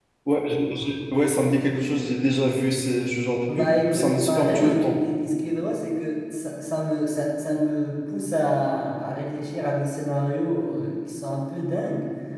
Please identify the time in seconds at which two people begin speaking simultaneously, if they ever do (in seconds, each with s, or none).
3.5 s